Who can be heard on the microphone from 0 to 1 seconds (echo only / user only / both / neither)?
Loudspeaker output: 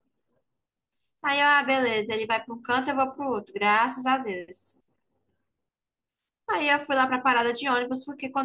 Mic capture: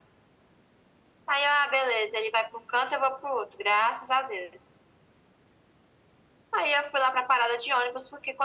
neither